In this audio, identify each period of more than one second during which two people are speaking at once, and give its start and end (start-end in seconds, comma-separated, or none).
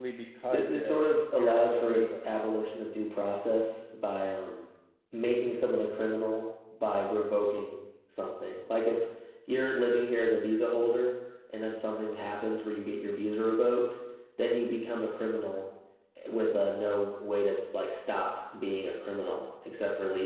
0.5-2.3